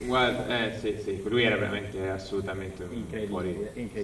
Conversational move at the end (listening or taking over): taking over